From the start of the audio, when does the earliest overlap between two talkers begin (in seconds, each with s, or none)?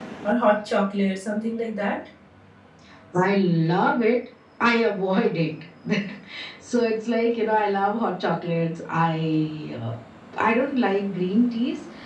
none